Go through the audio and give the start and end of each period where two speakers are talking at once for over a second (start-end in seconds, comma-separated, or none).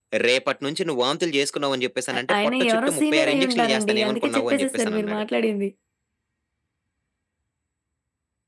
2.1-5.2